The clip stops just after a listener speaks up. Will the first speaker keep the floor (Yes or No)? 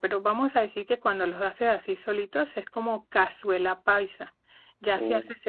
Yes